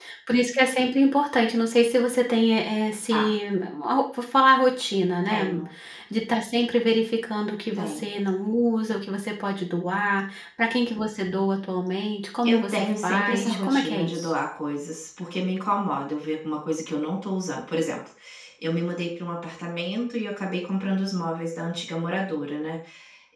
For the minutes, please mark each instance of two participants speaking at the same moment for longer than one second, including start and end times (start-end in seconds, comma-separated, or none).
12.4-14.3